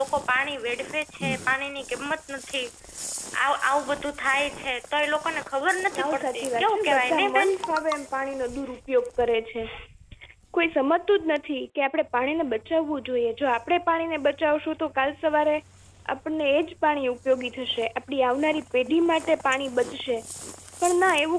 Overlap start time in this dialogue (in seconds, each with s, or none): 6.0 s